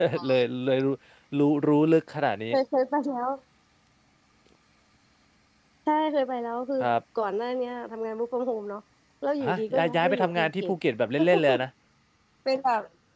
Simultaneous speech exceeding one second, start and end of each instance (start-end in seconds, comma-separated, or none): 9.5-10.7